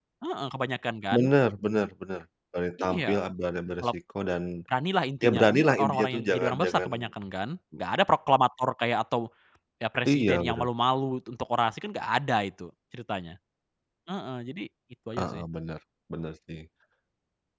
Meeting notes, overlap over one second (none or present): present